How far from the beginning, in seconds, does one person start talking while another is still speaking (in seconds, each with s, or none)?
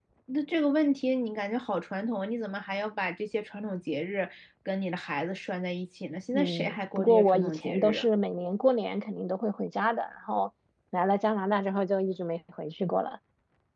6.3 s